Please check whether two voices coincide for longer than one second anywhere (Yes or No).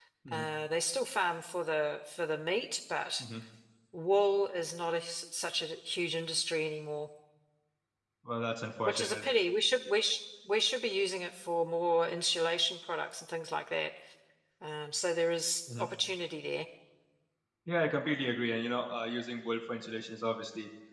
No